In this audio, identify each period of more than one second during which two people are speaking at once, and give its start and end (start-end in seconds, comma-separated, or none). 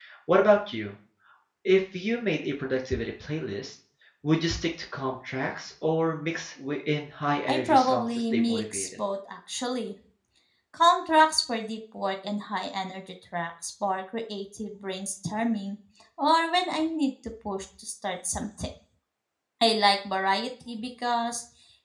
7.5-8.9